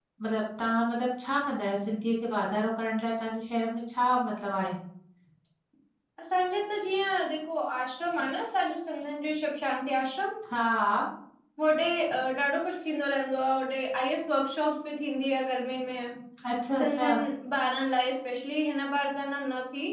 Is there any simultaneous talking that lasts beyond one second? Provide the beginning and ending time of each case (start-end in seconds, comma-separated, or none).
none